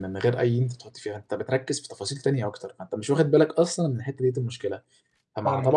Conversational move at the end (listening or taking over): listening